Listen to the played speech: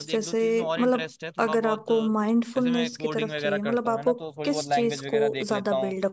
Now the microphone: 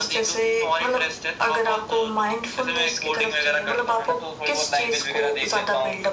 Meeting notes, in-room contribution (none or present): none